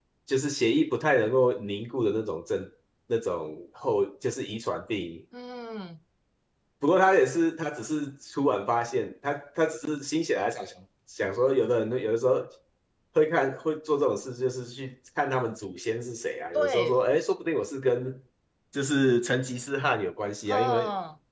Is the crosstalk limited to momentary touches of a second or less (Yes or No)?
Yes